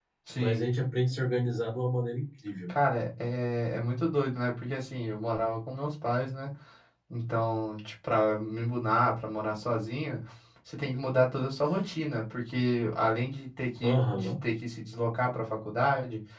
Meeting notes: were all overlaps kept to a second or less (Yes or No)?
Yes